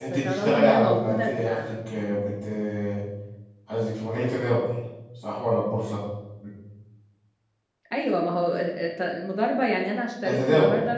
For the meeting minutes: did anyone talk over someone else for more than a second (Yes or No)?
Yes